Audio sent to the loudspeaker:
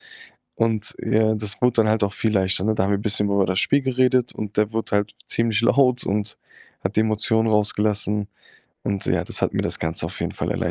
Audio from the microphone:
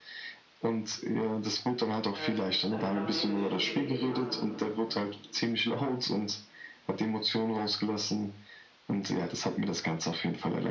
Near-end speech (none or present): present